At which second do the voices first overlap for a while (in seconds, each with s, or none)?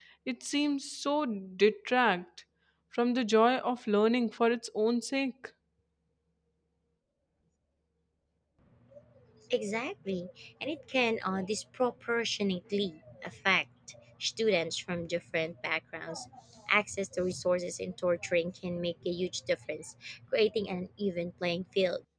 none